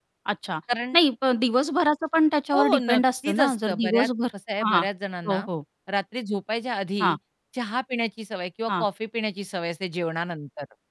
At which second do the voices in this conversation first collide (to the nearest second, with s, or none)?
3 s